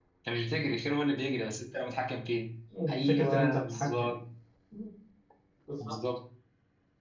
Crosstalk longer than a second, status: present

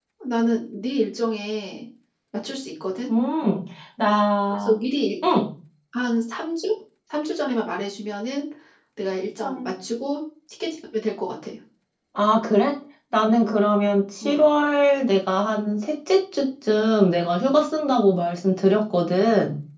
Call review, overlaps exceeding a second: none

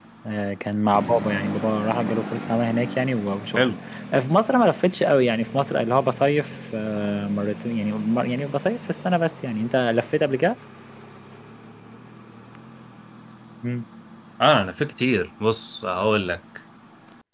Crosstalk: none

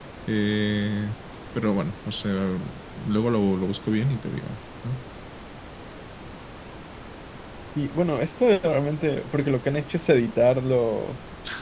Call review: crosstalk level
none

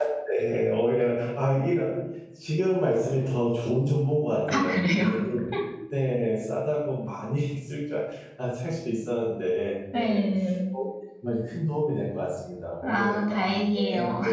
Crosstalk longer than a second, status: present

